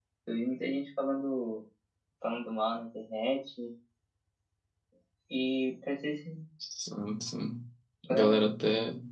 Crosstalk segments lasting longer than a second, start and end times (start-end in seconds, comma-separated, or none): none